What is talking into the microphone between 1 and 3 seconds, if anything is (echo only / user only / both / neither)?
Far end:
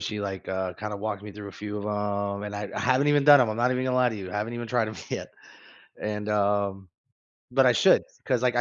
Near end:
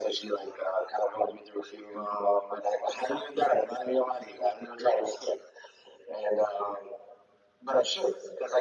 echo only